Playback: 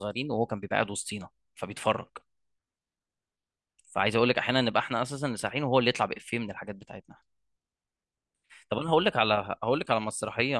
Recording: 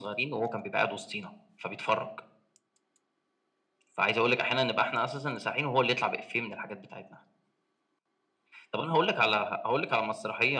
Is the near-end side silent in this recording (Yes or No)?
Yes